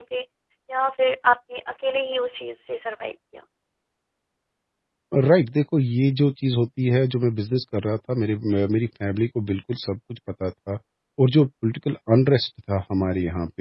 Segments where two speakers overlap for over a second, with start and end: none

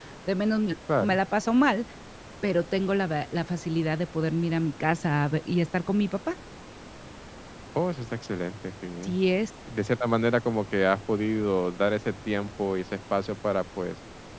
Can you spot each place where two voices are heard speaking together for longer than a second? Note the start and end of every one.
none

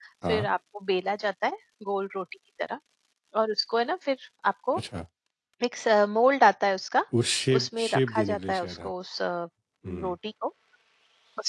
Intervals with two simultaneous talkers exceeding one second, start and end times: 7.5-8.9

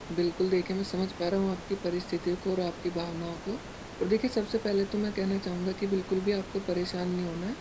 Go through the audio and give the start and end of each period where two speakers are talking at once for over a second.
none

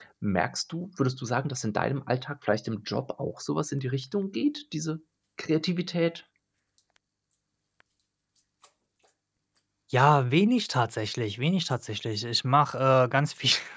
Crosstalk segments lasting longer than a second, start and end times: none

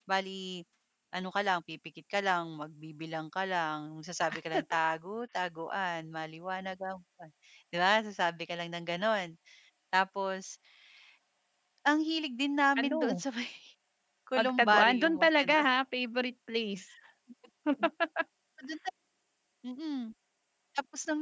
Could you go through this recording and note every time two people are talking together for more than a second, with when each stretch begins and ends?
14.4-15.7

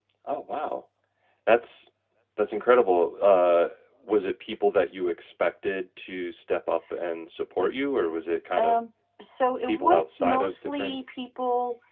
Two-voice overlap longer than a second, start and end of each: 9.6-11.0

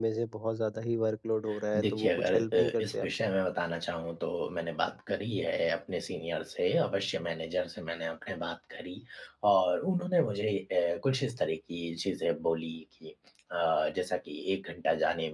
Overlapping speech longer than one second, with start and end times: 1.8-3.1

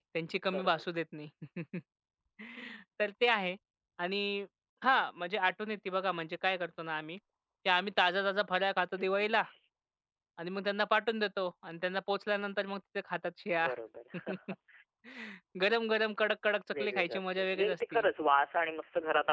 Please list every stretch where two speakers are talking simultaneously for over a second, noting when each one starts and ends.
16.8-18.0

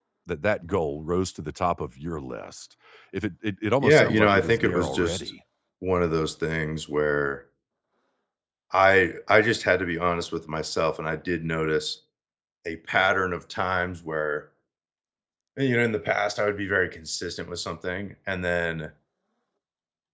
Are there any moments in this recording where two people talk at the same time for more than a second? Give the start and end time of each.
3.8-5.3

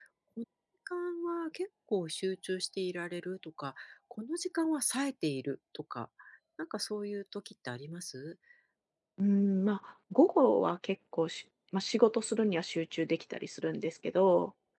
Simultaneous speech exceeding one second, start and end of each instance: none

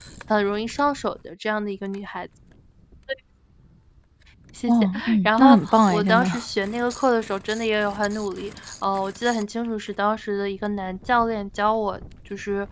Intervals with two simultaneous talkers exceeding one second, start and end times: 4.7-6.3

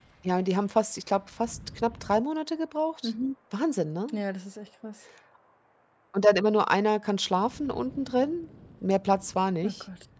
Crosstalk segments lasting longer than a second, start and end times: none

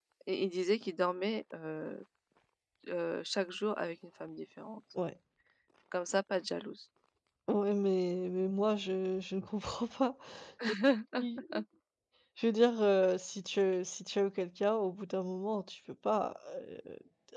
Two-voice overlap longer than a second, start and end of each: none

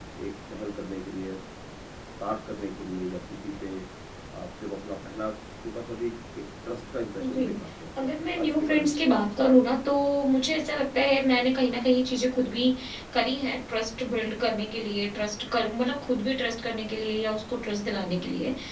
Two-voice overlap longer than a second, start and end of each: 8.0-9.3

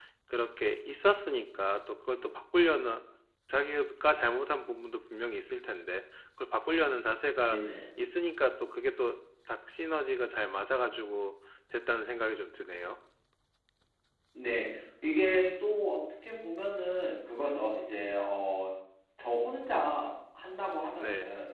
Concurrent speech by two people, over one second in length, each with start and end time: none

